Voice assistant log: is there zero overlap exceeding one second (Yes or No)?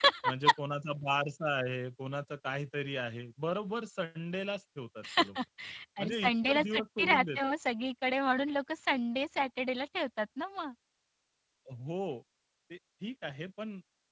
No